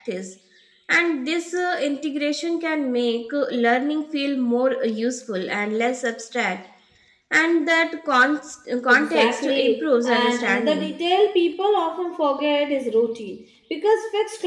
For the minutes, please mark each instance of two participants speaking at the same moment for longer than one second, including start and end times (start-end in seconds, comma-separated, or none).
8.9-10.9